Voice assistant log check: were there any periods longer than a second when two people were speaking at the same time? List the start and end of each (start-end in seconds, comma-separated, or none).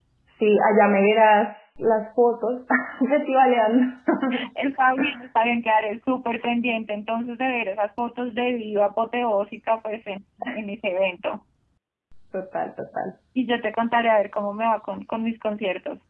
none